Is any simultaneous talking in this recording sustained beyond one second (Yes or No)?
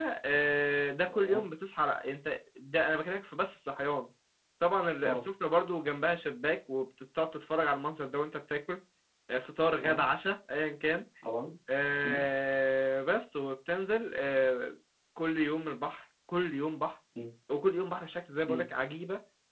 No